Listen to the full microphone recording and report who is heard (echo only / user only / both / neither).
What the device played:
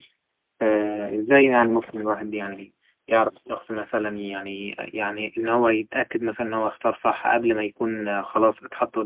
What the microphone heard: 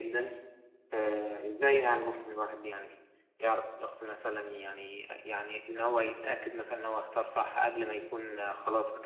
echo only